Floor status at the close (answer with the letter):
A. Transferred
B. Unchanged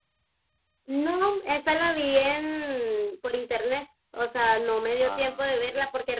B